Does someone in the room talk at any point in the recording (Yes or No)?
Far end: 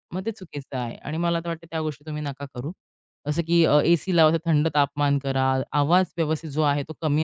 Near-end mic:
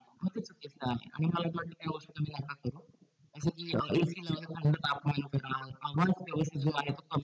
No